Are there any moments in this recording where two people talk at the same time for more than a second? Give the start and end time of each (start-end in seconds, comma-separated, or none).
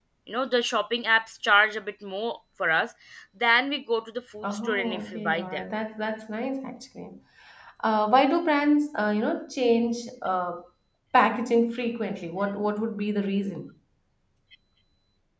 4.4-5.6